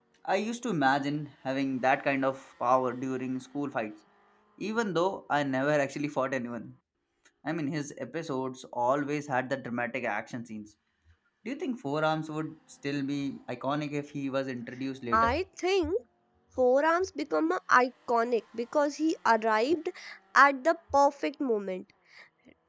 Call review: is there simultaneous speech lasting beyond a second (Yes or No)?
No